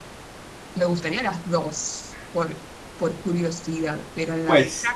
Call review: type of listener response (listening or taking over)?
taking over